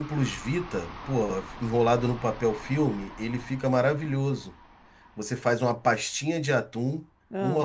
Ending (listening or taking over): listening